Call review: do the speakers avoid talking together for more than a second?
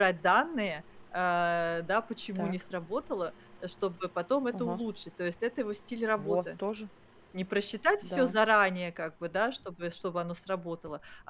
Yes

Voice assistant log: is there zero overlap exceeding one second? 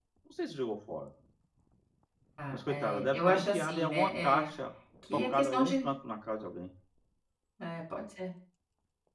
No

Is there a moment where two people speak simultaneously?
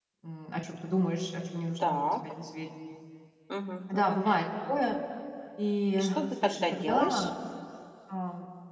Yes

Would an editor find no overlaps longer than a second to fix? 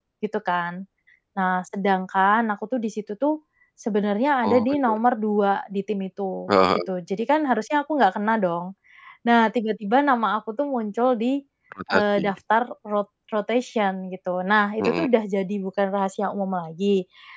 Yes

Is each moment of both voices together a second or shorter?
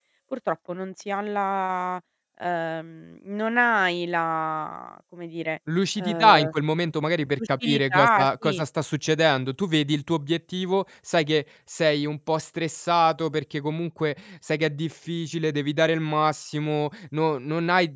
No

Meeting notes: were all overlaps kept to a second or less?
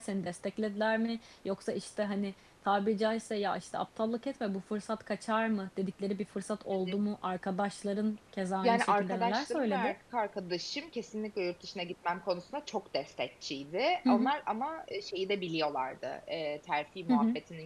No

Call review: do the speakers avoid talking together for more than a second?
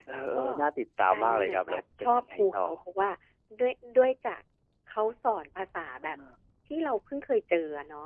No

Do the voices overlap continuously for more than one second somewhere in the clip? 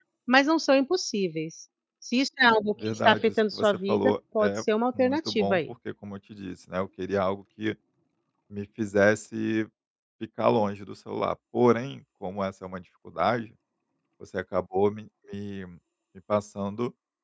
Yes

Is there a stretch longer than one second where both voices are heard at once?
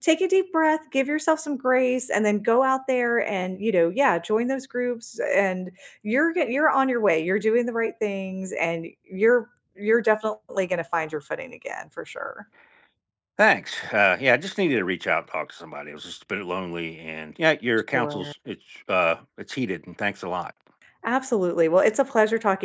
No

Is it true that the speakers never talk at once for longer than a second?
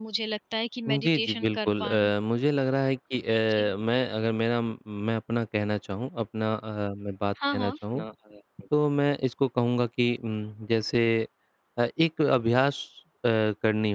No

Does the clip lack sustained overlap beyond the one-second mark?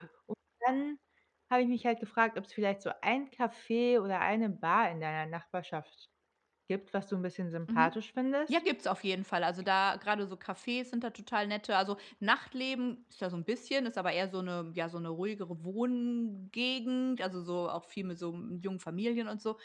Yes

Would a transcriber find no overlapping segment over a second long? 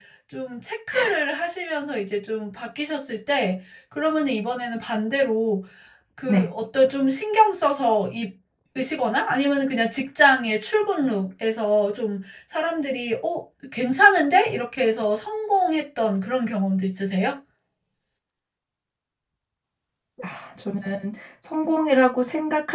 Yes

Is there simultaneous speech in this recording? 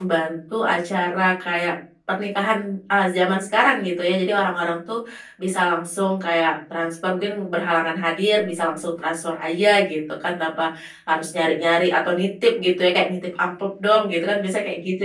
No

